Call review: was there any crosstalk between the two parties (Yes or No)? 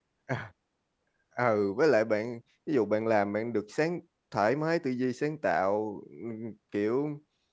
No